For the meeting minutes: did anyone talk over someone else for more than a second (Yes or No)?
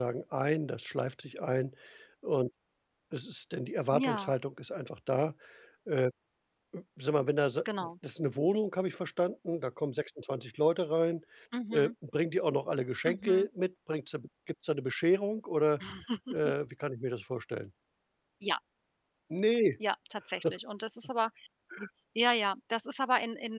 No